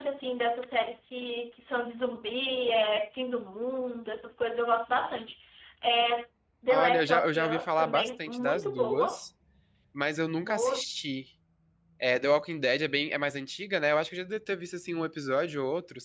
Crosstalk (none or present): present